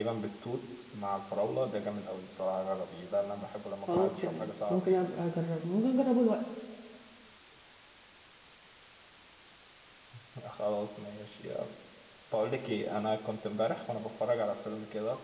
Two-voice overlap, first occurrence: 3.9 s

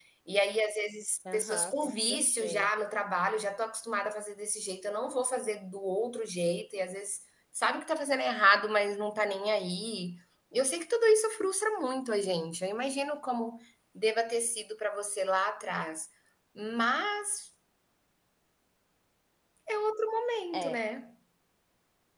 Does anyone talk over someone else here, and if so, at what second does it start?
1.3 s

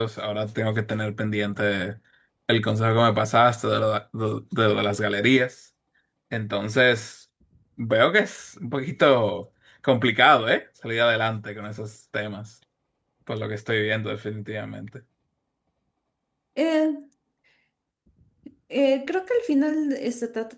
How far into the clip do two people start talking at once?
none

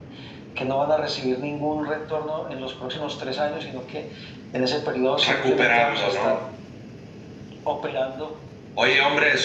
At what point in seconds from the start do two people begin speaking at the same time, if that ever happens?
5.2 s

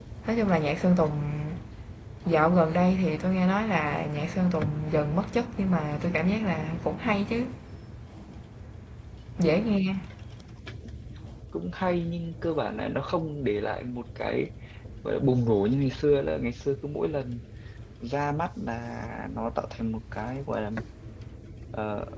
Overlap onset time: none

